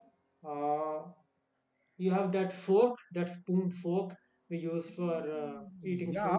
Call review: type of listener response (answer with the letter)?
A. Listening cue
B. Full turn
B